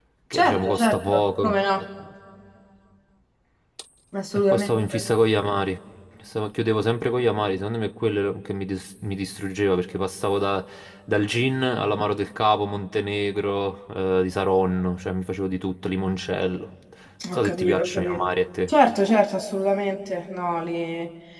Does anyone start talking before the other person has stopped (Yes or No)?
Yes